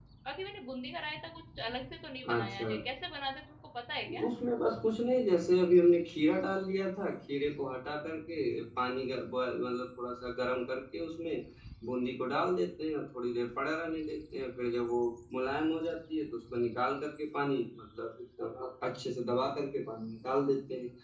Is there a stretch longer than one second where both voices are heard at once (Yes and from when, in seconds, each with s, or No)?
No